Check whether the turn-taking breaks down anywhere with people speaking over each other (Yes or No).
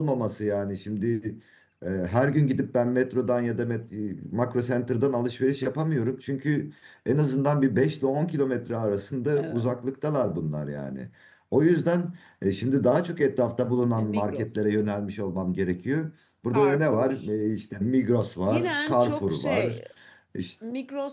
Yes